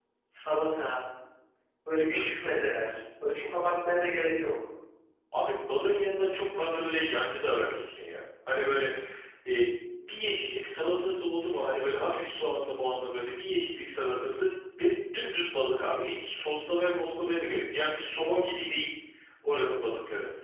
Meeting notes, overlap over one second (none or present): none